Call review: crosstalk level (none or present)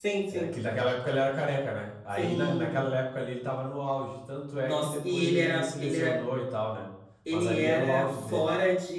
present